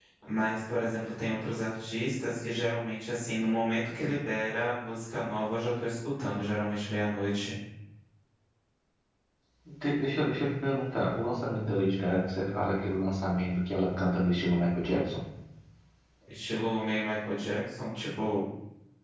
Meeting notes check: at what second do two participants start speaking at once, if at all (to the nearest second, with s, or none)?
none